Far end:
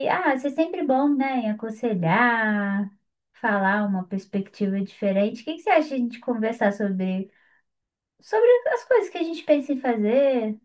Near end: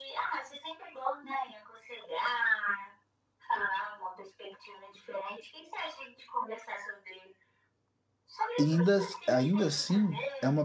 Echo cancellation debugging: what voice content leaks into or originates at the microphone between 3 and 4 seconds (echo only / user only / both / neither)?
echo only